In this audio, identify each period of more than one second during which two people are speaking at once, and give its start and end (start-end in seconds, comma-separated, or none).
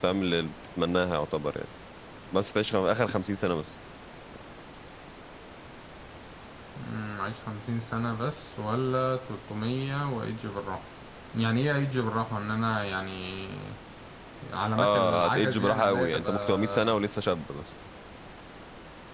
14.8-17.0